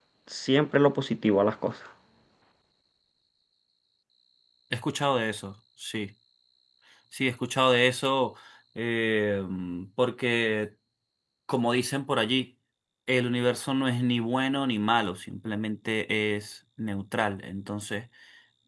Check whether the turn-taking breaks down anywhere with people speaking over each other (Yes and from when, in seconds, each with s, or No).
No